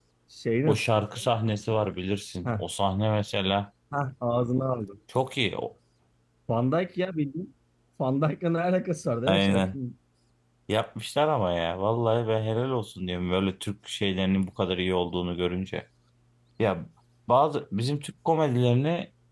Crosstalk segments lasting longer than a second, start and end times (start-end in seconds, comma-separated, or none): none